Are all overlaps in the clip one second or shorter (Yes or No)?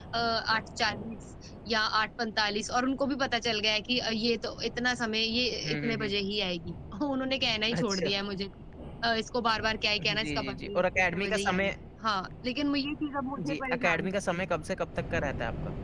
No